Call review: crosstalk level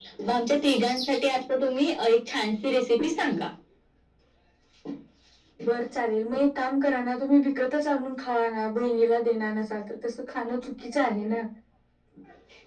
none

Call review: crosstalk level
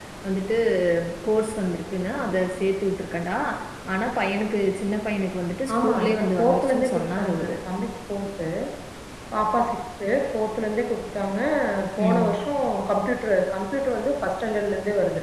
present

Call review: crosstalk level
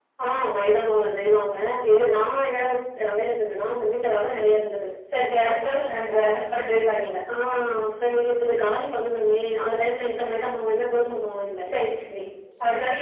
none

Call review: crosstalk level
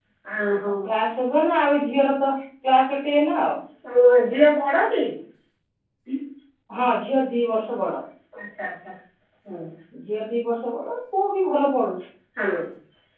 none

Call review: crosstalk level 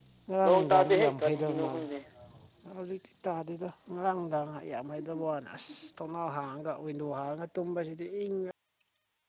present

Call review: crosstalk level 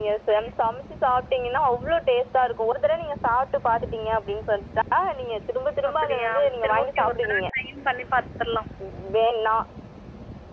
present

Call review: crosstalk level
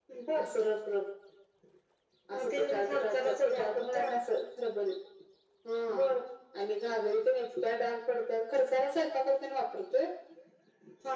present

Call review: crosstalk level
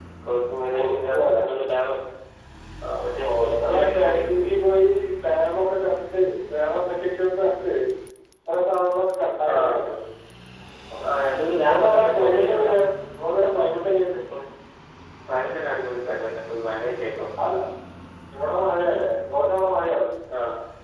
present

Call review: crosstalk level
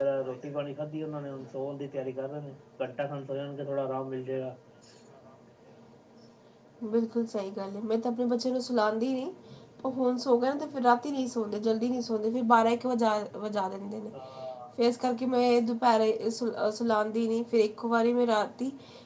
none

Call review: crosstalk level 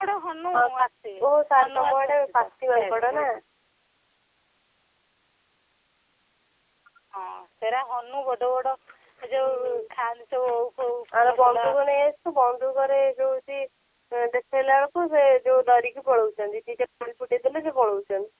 present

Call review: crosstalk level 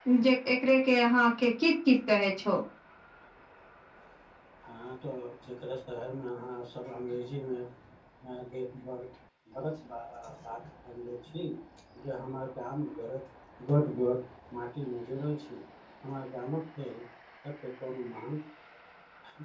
none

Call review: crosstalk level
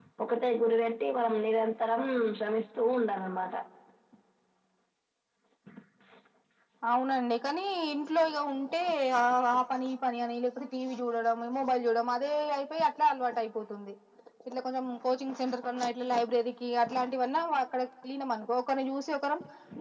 none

